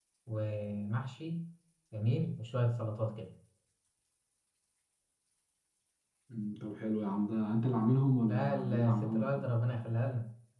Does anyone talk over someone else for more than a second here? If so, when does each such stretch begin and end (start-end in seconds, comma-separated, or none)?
8.3-9.5